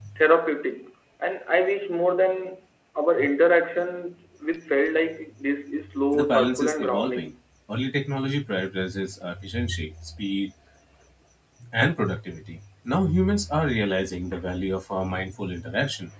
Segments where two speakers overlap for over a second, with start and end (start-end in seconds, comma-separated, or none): 6.1-7.3